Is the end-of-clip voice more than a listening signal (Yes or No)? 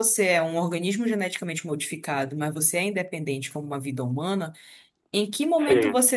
No